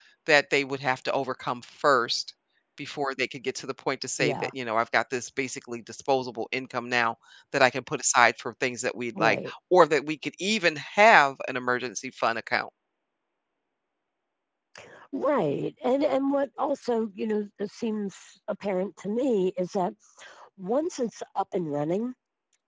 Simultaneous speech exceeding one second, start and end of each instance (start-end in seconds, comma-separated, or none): none